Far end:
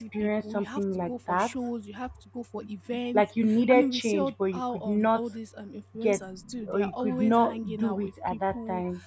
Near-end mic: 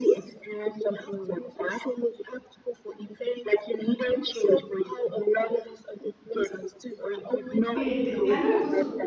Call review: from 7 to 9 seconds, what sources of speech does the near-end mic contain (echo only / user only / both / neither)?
both